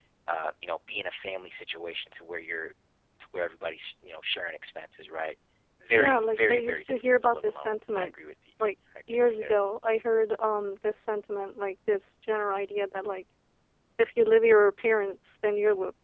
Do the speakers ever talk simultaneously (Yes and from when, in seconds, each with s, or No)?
Yes, from 5.9 s